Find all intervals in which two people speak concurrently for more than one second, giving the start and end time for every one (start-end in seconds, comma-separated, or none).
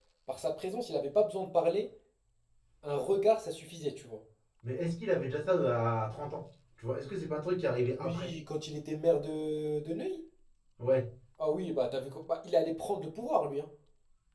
none